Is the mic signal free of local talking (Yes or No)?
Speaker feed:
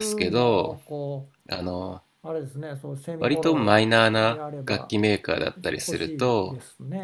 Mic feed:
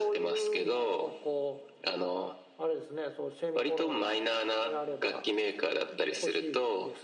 Yes